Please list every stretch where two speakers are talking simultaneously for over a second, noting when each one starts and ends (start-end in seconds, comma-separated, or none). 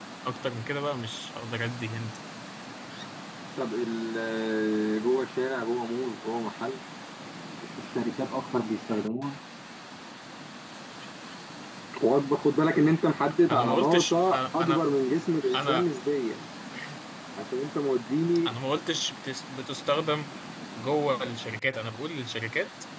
13.5-14.8